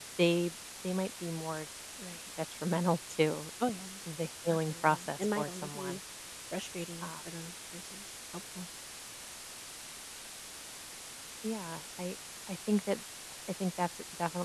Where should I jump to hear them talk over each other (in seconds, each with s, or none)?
4.7 s